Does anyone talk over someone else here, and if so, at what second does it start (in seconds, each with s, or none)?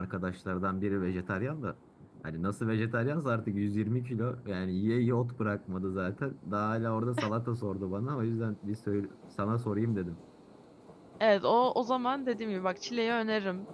none